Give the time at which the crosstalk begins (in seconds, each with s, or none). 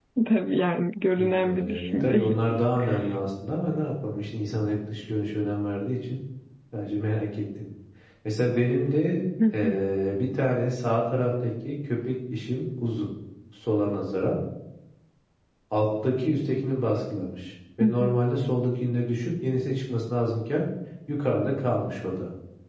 1.2 s